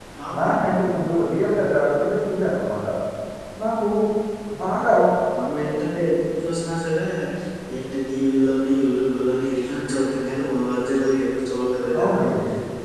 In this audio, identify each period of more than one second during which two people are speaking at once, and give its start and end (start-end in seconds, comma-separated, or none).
none